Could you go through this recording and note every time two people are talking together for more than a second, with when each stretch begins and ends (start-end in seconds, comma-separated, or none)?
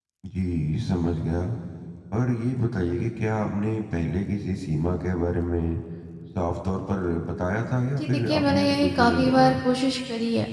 8.0-9.6